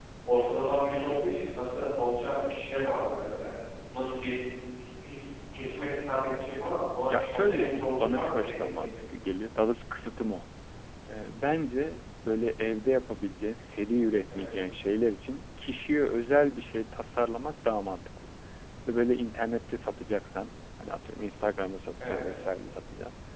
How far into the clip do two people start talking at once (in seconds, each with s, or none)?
7.1 s